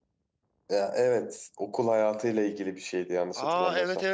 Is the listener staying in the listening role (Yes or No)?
No